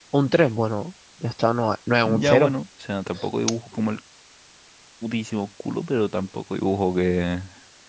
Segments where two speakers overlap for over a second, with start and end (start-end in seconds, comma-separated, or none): none